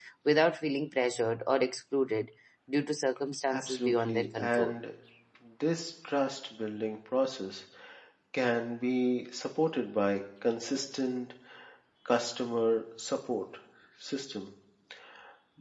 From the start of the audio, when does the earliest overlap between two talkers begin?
3.5 s

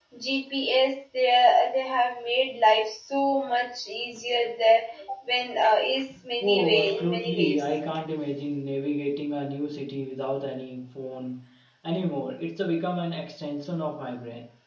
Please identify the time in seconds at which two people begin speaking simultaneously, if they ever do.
6.4 s

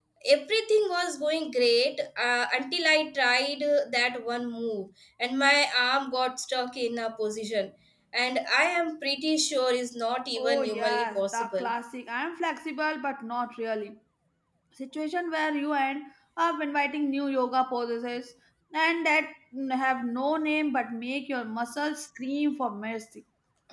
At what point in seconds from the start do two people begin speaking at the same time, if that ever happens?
10.4 s

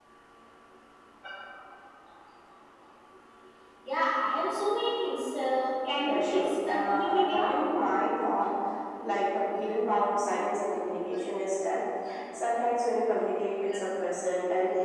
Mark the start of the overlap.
6.1 s

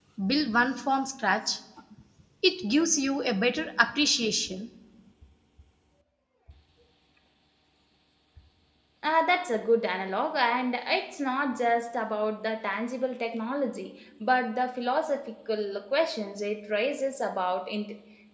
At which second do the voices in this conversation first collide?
none

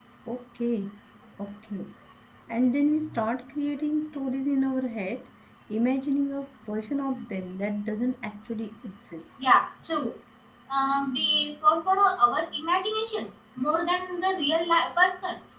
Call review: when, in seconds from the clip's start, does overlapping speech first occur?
none

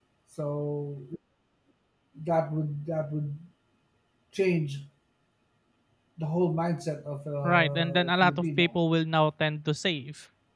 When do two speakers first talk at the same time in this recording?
7.4 s

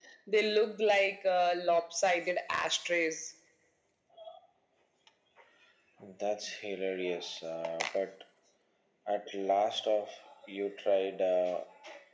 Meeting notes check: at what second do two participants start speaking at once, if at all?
none

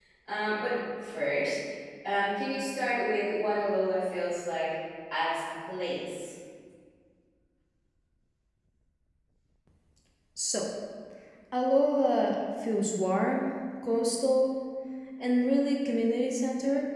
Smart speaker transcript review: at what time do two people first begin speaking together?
none

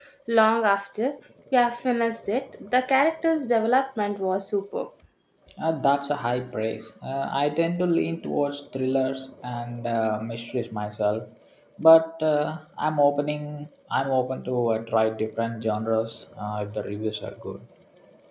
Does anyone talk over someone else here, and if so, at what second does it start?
none

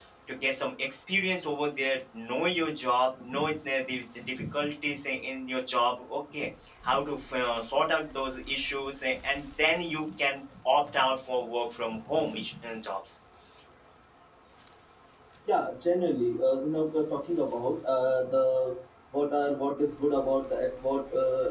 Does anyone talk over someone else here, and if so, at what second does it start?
none

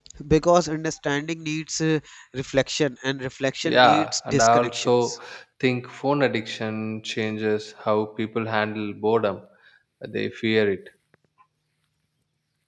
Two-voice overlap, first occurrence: 3.6 s

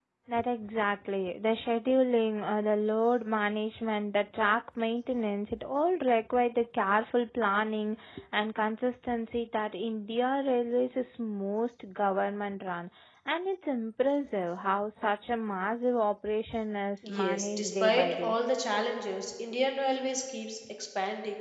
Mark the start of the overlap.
17.0 s

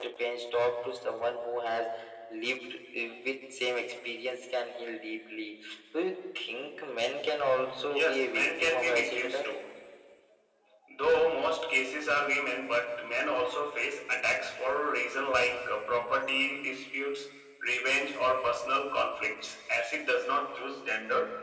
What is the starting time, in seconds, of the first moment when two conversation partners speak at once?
7.9 s

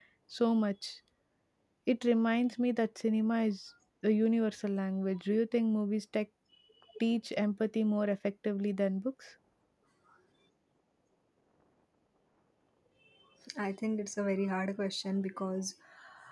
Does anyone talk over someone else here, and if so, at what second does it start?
none

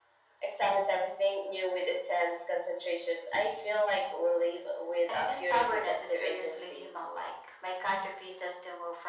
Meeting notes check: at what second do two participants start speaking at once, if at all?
5.1 s

